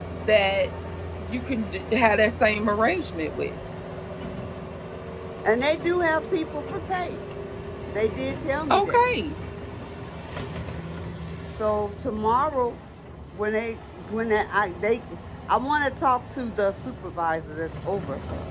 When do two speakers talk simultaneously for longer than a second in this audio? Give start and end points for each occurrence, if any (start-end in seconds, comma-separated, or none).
none